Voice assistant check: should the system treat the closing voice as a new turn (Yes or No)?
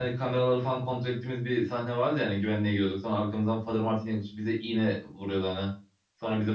No